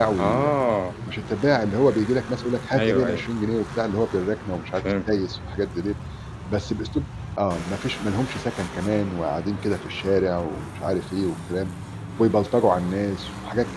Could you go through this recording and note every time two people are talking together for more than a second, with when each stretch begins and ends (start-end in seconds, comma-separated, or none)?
none